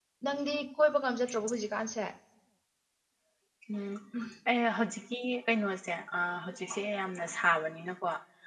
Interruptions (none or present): none